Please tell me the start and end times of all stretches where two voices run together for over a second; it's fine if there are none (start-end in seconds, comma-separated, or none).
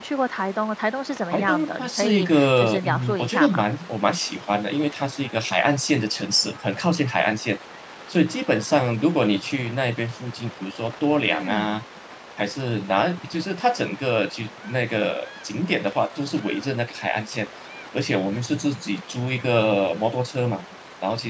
1.3-3.6